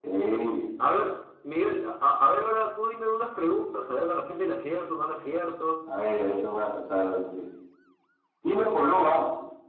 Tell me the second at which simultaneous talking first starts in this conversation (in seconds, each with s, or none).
none